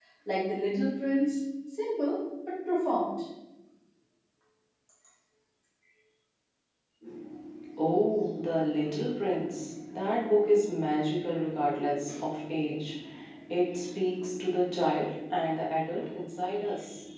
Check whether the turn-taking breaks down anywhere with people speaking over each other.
No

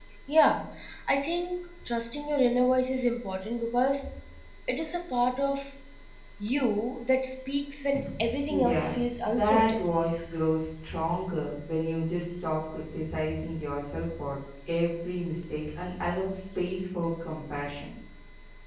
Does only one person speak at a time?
No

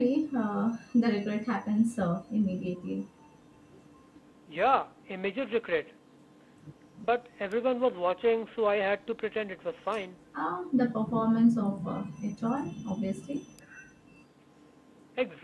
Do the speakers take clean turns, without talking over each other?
Yes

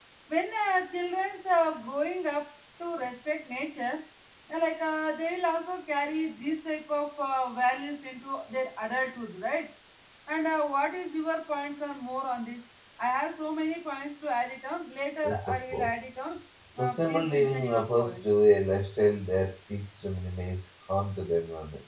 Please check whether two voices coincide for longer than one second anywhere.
Yes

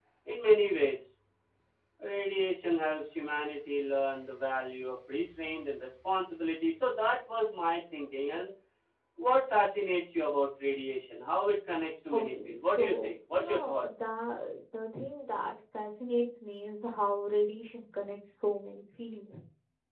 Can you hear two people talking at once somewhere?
Yes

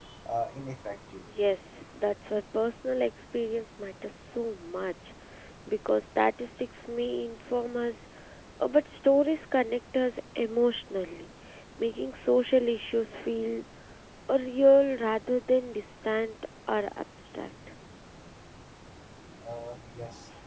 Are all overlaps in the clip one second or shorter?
Yes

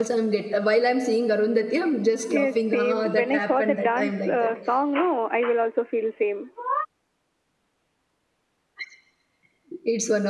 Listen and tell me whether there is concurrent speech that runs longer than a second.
Yes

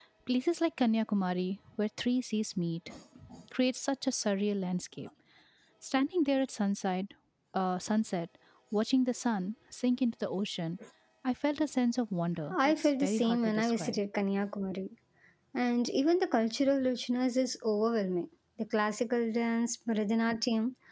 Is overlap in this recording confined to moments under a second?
No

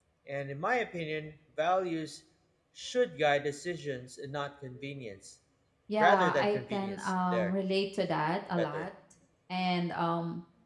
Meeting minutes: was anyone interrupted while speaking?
Yes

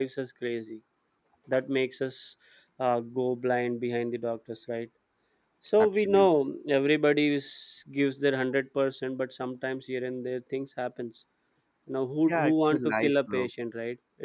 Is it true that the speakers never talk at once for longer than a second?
No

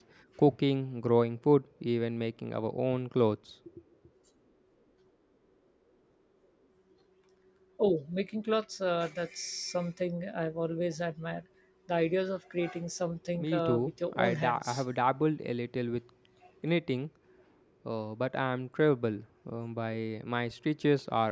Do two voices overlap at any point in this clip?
Yes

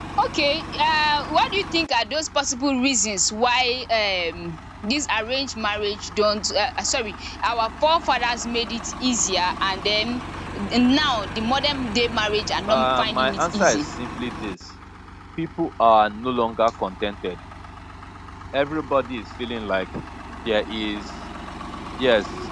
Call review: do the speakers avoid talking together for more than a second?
No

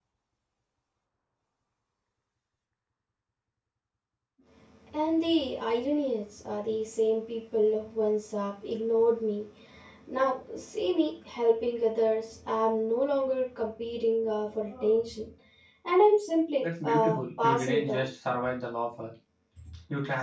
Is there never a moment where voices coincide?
No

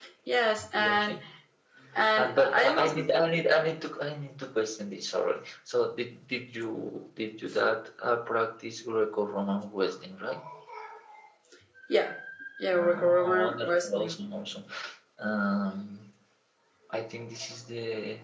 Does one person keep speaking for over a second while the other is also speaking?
Yes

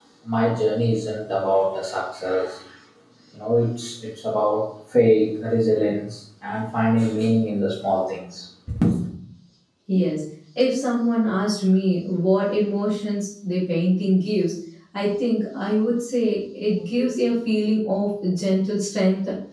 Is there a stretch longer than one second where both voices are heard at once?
No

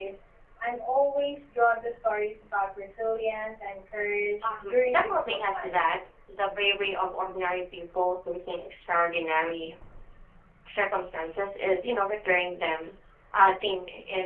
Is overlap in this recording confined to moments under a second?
No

